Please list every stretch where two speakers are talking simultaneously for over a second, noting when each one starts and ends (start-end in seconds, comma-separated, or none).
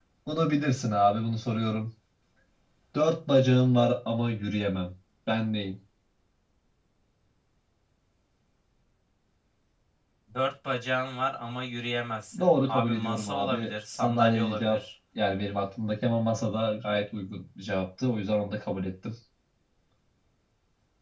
12.4-14.8